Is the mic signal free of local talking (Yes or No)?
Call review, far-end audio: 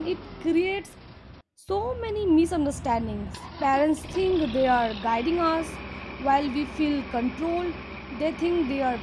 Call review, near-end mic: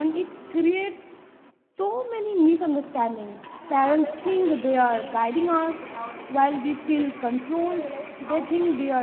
No